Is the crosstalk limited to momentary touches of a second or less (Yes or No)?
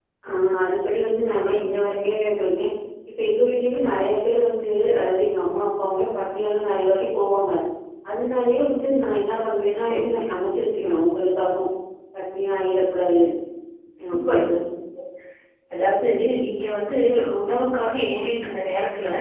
Yes